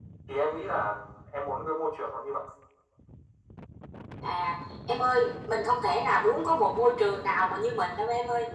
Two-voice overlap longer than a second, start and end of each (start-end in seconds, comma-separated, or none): none